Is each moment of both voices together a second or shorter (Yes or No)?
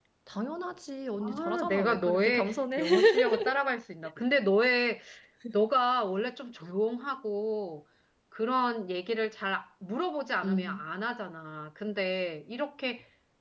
No